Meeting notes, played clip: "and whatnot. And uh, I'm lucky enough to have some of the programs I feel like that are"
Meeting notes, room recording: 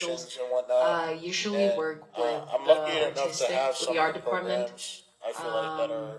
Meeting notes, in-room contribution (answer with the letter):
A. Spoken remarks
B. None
A